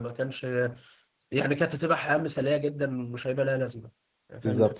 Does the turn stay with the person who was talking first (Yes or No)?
No